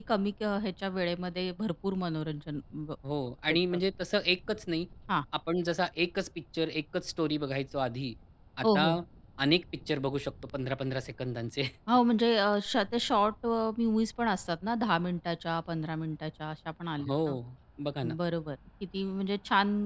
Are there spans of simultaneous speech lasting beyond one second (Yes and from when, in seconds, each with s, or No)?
No